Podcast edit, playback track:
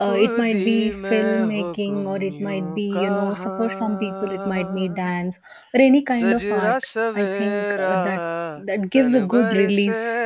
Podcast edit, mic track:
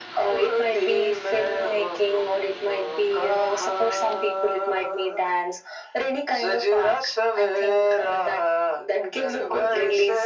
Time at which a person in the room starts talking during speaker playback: none

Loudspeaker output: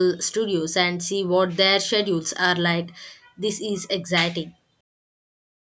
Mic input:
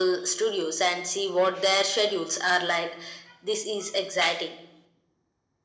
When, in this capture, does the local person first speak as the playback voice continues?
none

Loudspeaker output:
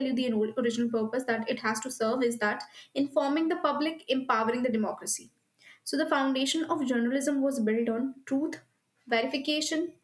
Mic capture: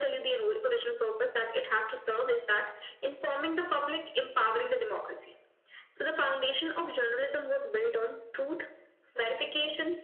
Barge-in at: none

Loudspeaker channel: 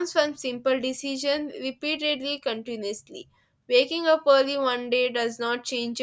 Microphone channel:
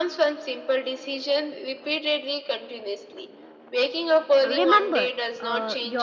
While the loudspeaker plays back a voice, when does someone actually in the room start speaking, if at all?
4 s

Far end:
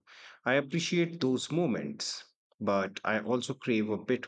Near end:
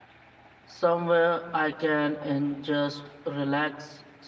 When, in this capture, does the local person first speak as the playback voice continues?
1 s

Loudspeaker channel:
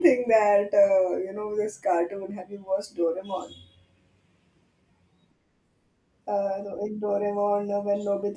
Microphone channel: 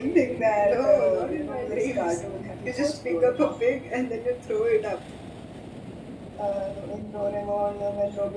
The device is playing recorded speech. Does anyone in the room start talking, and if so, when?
1 s

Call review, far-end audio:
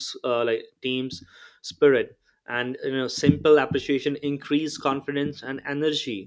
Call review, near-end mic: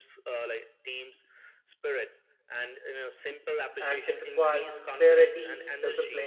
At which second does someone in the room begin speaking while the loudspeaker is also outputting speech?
4 s

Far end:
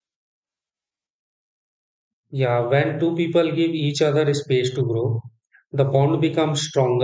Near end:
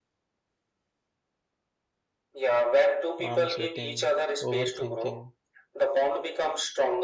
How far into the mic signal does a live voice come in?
3 s

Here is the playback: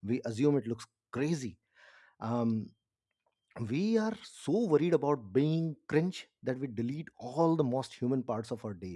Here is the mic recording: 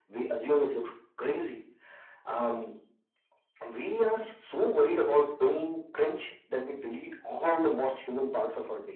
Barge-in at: none

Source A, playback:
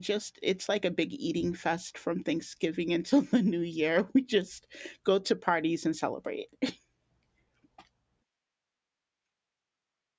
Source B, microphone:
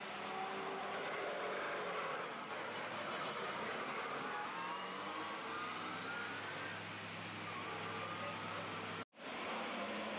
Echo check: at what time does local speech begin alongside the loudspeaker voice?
none

